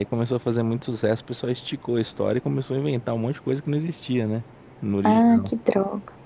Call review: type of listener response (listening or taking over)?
taking over